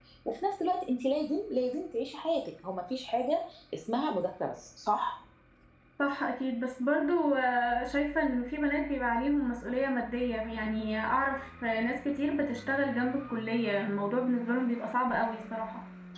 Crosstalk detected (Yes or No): No